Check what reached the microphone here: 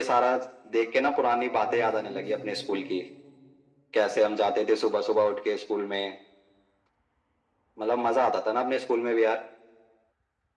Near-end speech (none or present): present